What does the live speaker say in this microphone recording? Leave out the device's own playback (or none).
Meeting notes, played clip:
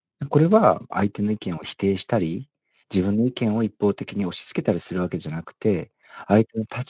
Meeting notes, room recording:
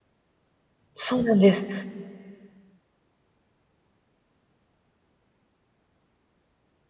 そうなんです。